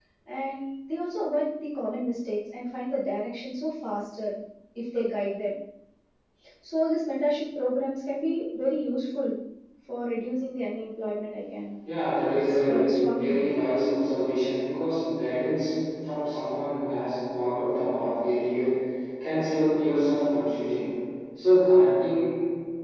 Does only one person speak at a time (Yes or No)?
No